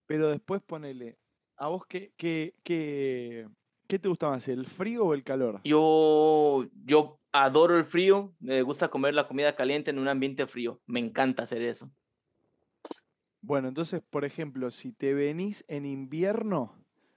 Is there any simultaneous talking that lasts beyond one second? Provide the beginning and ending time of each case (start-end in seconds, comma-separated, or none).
none